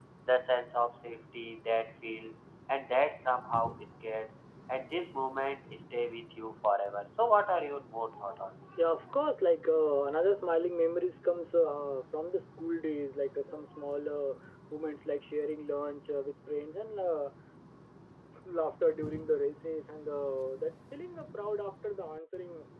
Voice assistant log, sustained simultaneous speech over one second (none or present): none